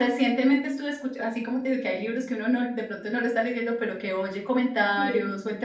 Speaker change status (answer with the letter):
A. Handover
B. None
B